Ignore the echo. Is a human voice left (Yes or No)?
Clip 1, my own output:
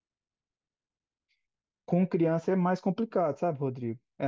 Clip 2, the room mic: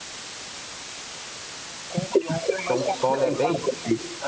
Yes